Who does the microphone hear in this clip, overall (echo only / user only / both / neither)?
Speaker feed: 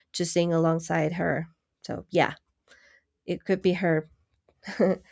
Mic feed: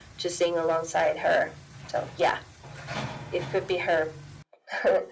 echo only